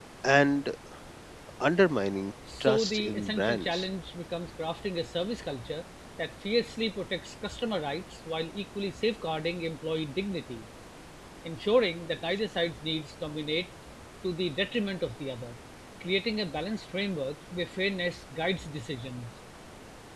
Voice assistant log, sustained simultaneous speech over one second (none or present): present